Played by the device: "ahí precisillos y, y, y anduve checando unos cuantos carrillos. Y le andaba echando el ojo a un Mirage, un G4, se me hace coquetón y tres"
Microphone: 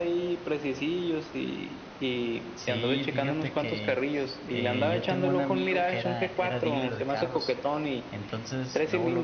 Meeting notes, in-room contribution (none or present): present